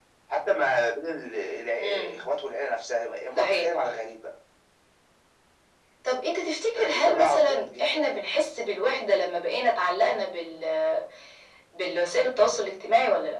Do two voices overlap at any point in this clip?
Yes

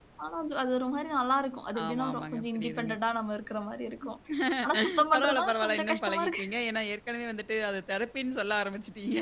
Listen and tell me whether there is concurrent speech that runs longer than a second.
Yes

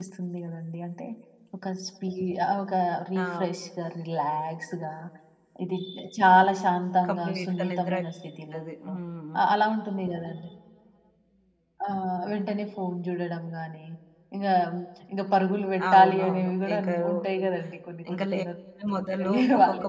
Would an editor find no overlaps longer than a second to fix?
No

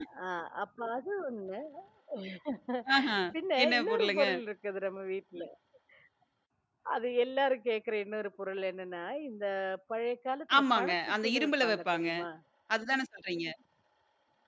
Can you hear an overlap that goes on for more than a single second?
Yes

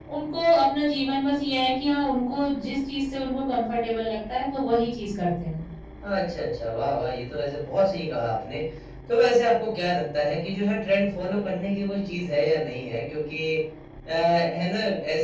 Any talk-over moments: No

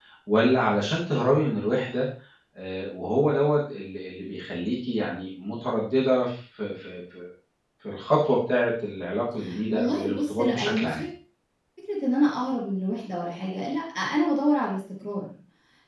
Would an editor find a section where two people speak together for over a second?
Yes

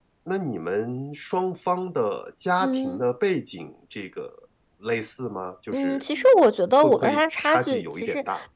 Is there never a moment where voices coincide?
No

